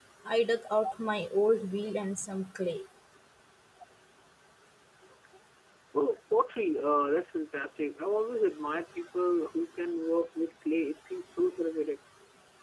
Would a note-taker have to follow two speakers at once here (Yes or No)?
No